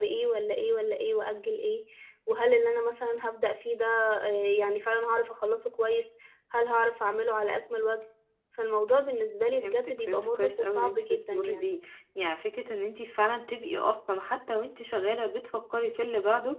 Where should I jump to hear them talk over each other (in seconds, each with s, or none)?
9.5 s